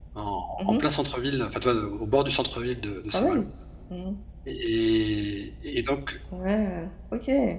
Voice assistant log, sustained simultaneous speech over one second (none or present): none